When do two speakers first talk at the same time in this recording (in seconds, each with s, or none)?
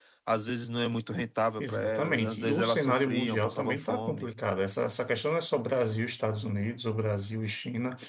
1.6 s